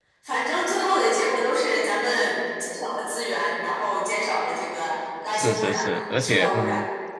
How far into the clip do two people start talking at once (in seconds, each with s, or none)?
5.3 s